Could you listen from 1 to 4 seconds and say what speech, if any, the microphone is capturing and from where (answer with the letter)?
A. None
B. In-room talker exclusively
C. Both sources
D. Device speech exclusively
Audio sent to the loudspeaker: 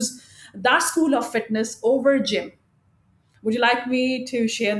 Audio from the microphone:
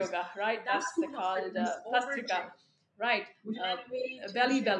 C